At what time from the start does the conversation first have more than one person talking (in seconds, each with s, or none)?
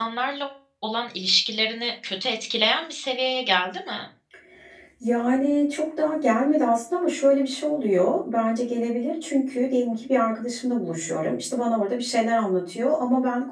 none